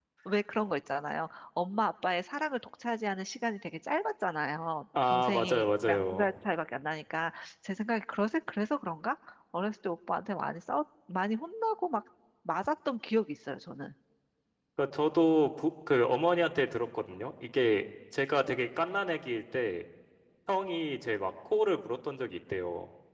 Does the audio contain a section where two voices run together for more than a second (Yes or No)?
Yes